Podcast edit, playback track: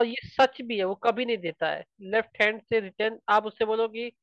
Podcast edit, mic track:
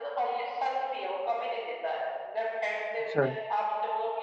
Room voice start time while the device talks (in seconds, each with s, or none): 3.0 s